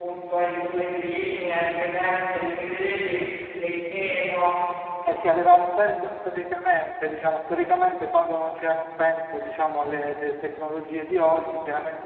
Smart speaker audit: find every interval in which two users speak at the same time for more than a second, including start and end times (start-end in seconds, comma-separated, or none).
none